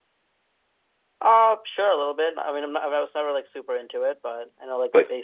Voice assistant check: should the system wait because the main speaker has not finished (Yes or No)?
No